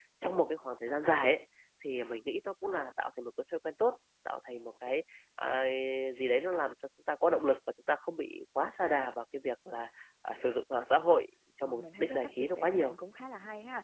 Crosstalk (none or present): present